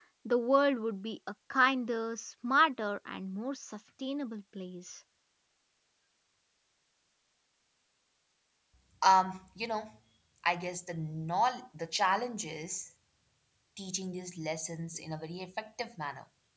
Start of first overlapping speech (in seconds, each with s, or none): none